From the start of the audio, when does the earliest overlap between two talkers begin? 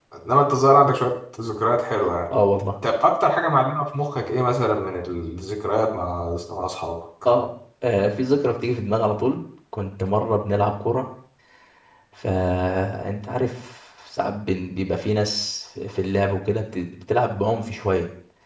none

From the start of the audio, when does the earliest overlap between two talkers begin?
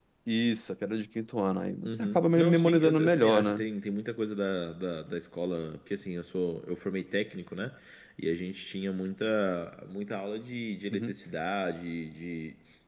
1.8 s

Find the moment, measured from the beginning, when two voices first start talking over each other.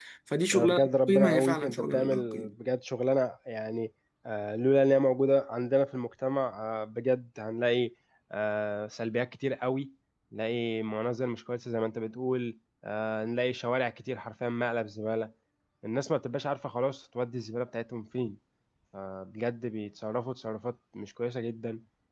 0.5 s

